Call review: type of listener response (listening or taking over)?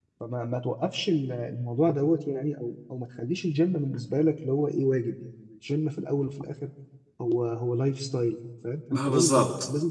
listening